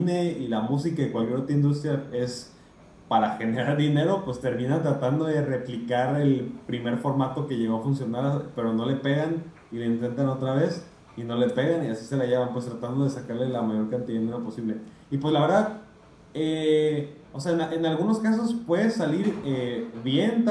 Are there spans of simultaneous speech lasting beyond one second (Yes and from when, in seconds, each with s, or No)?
No